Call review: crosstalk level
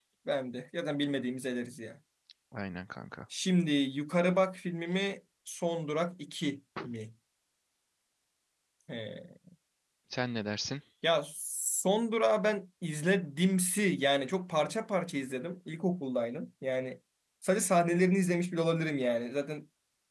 none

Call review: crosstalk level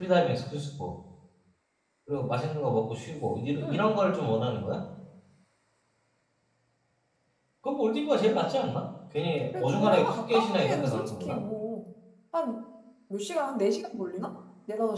present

